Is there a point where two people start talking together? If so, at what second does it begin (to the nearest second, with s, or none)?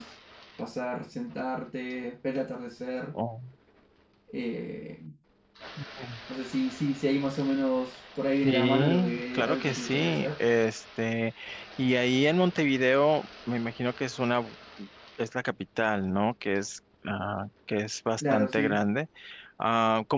8 s